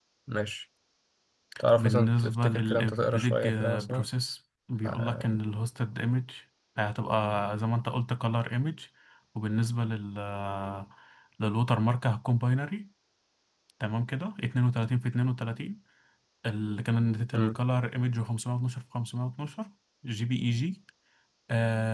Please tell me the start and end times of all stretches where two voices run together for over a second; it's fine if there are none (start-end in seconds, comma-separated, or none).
1.8-4.1